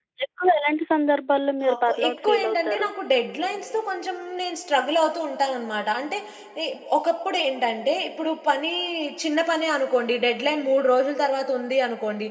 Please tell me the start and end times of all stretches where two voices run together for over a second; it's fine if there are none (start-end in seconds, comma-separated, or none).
1.7-2.9